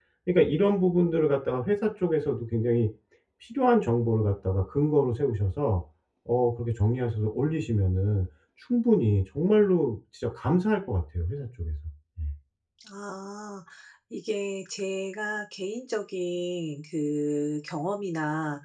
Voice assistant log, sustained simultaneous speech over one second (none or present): none